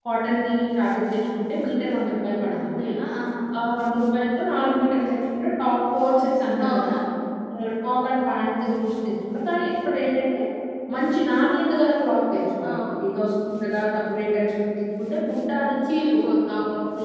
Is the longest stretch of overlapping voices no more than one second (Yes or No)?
Yes